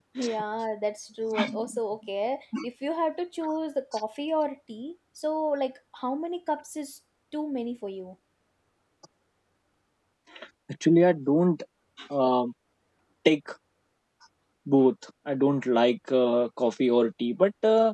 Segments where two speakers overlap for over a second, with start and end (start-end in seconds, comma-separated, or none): none